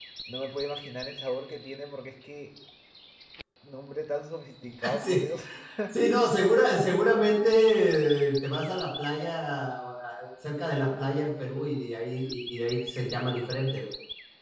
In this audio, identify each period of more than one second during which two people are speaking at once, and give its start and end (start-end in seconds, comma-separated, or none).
none